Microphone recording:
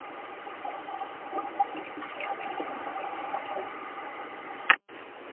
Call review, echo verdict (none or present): none